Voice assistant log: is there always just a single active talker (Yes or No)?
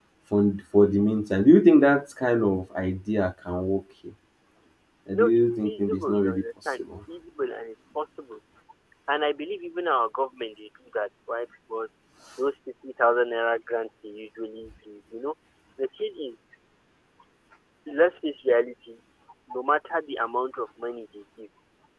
No